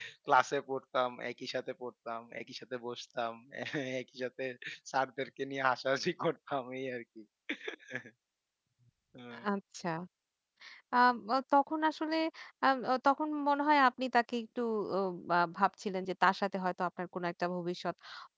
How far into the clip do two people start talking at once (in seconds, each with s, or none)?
none